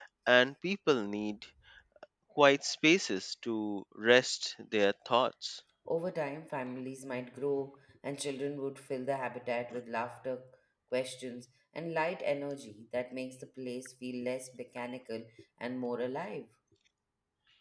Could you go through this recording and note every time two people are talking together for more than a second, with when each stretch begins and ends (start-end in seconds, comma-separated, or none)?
none